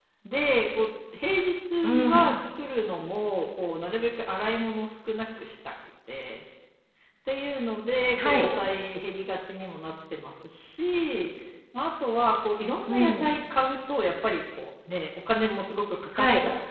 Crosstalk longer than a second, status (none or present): none